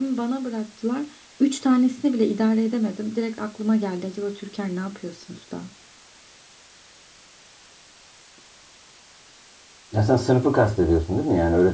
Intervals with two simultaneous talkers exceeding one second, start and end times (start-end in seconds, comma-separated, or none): none